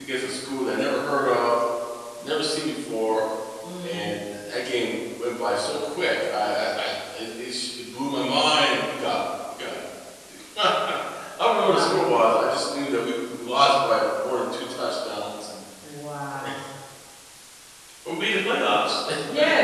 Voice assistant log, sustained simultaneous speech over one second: none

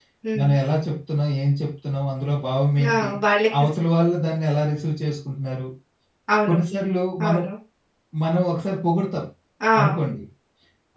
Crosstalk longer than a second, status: none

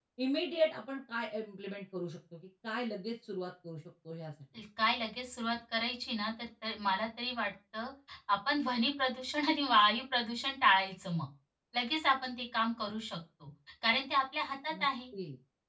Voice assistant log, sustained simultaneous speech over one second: none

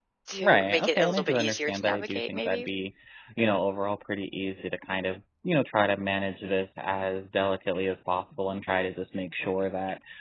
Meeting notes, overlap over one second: present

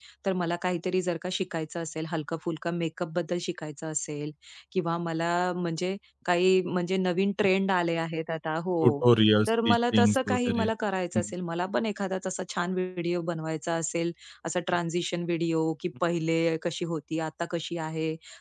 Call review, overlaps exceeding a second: present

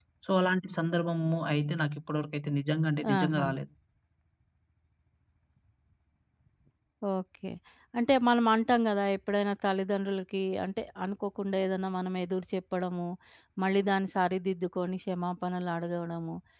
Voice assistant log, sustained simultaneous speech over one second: none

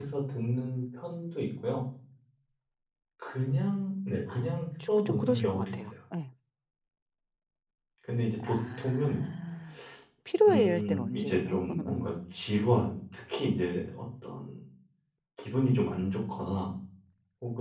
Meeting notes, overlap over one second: present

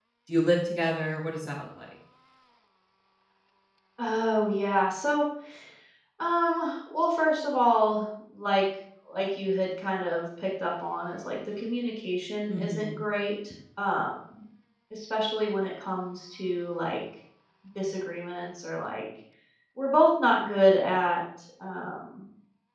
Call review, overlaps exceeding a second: none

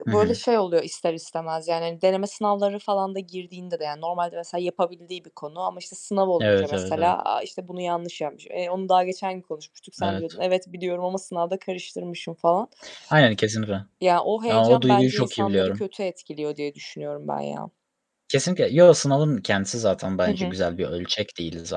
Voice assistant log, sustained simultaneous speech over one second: present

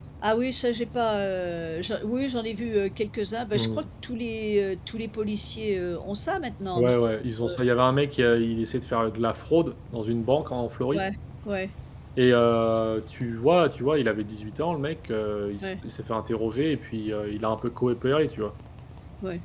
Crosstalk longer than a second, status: none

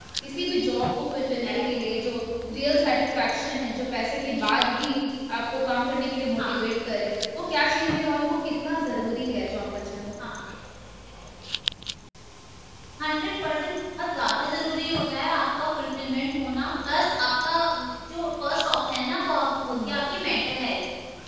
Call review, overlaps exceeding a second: none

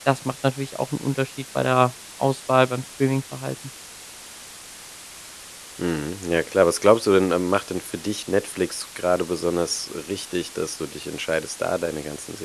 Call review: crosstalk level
none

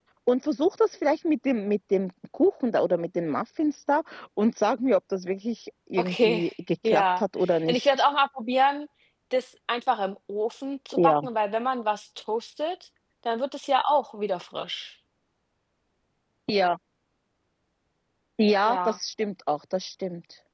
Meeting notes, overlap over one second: none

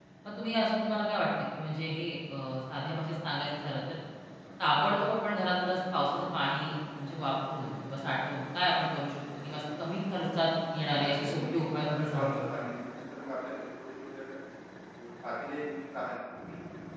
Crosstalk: present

